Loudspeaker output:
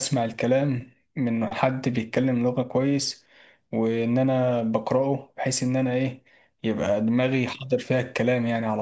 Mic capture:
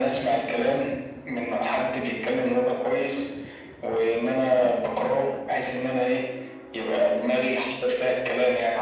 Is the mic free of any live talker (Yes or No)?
Yes